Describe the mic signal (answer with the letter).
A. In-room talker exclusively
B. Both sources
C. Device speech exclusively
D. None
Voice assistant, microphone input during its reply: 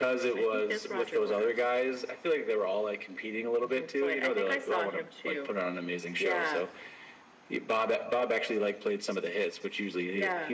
C